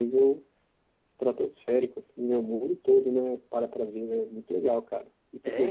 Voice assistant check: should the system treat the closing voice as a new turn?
Yes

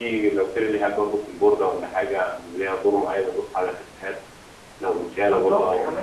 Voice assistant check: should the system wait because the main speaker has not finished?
No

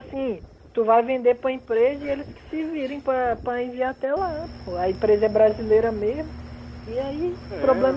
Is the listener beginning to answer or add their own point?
No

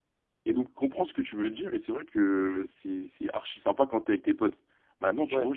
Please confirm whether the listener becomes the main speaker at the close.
No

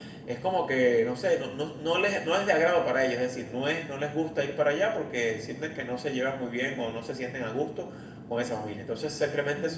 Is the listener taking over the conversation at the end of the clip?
No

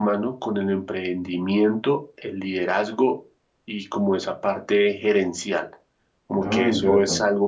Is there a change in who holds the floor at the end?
No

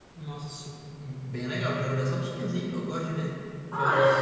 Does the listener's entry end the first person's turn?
Yes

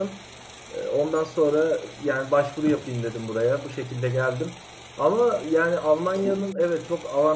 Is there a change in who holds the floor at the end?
No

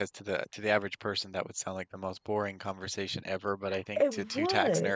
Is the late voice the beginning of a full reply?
No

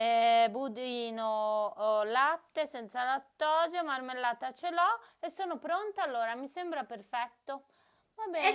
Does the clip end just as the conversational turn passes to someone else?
Yes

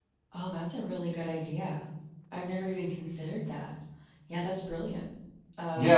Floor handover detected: Yes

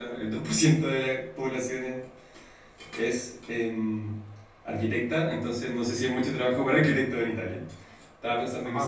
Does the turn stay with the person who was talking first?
No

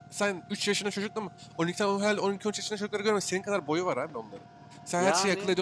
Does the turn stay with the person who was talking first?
Yes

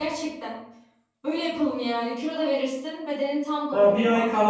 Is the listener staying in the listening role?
No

